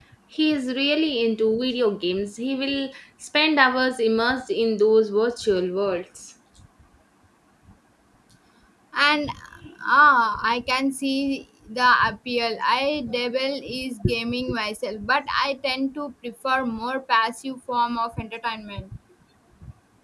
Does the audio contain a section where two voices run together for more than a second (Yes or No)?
No